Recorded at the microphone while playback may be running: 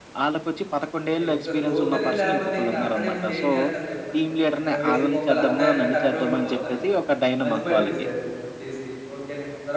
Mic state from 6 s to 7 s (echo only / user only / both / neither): both